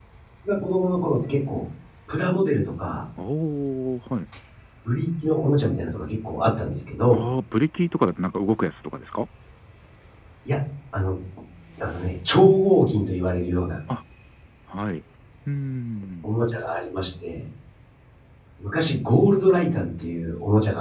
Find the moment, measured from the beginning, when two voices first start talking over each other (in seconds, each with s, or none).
none